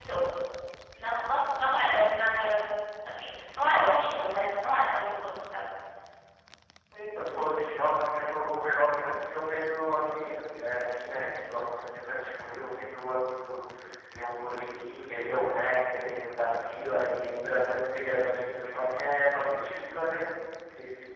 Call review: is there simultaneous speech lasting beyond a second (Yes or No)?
No